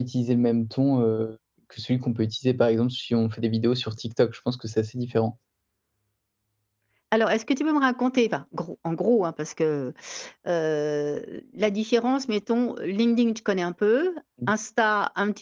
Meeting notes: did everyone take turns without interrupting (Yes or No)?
Yes